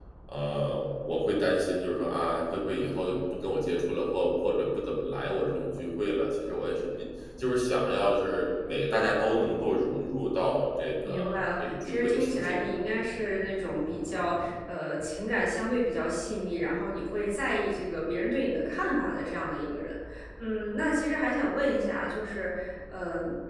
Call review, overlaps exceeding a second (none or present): present